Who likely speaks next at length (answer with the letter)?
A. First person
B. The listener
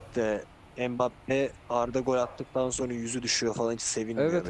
B